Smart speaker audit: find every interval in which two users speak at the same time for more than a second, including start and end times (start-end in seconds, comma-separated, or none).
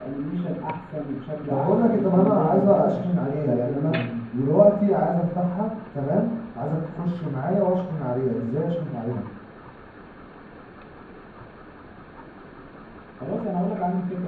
1.5-3.9